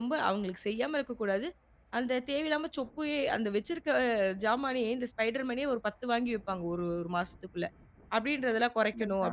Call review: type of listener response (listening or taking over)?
listening